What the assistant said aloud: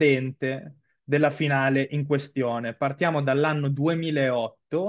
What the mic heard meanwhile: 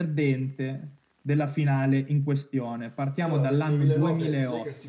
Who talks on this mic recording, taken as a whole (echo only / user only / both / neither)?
both